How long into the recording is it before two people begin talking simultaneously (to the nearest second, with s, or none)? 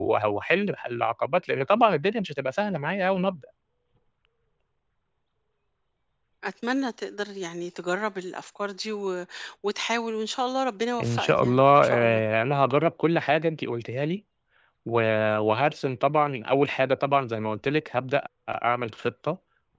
11 s